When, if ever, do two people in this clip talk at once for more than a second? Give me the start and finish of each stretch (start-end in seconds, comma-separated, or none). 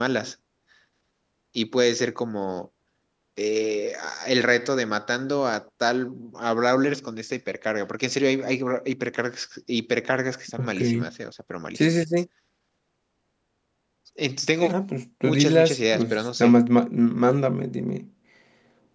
15.2-16.5